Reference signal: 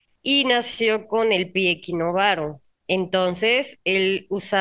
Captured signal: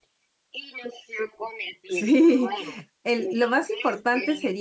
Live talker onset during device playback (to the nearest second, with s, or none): 2 s